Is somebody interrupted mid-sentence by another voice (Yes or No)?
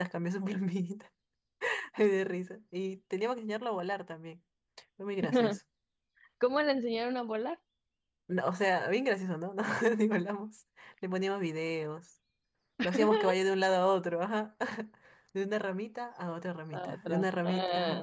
Yes